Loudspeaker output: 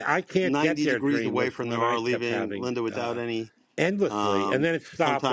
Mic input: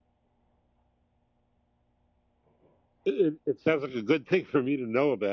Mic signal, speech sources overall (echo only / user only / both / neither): user only